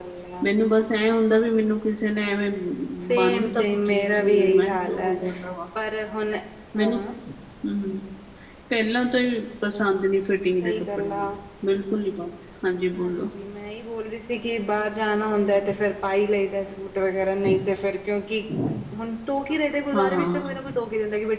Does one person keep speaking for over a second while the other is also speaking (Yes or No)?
Yes